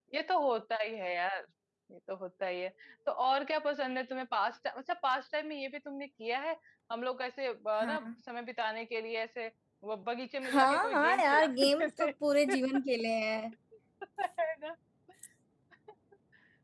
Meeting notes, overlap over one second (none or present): present